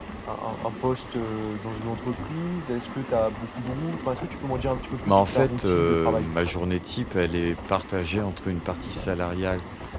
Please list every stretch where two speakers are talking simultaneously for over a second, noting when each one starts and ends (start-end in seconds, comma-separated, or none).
5.0-6.3